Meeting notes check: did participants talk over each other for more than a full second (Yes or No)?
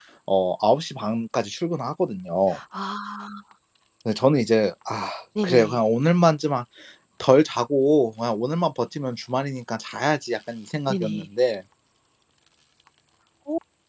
No